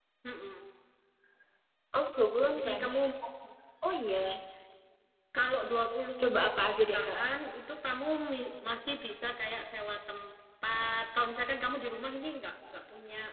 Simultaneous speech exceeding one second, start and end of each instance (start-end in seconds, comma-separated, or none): none